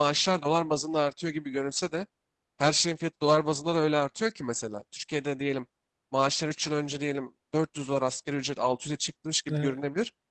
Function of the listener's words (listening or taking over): listening